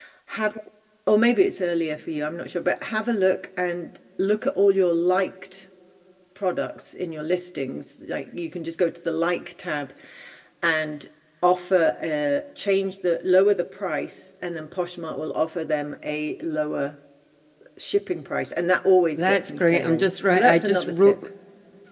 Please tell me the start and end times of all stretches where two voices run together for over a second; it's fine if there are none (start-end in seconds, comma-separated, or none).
19.2-21.2